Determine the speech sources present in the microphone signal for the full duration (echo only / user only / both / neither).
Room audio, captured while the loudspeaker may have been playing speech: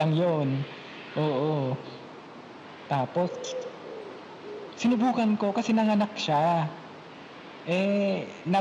echo only